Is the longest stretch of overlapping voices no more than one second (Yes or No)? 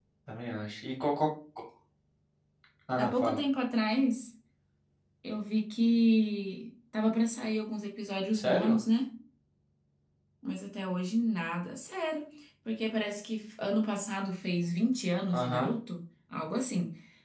Yes